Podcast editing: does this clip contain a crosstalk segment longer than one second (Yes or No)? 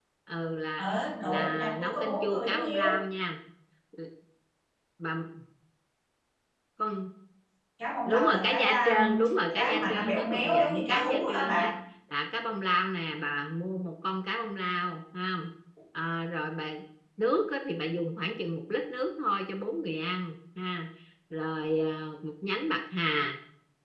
Yes